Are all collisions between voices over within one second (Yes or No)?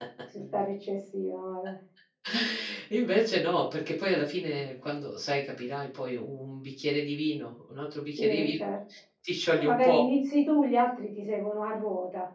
Yes